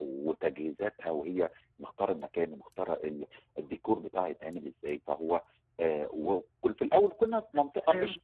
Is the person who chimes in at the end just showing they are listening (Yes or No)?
Yes